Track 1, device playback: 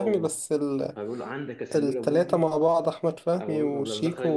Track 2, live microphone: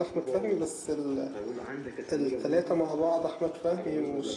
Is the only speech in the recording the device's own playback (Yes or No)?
Yes